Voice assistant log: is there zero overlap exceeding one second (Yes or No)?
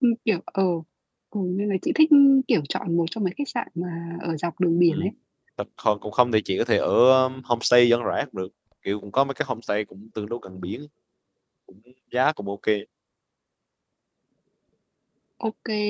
Yes